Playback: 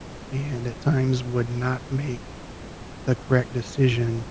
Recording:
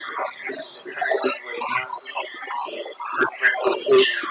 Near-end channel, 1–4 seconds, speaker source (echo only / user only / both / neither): echo only